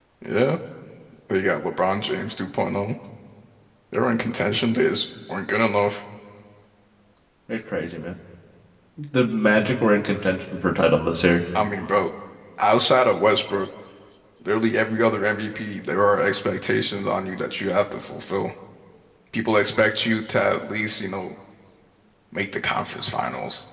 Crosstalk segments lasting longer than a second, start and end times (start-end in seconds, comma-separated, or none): none